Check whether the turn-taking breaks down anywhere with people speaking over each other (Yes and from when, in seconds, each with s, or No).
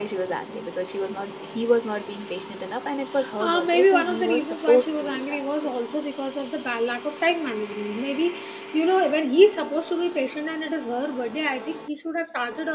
Yes, from 3.2 s